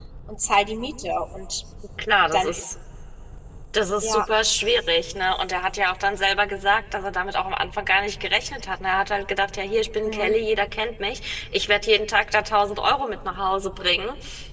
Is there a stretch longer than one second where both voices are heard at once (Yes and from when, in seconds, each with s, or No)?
No